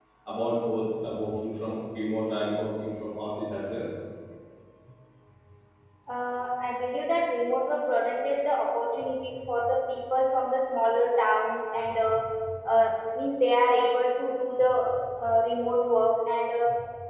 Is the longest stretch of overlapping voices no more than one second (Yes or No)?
Yes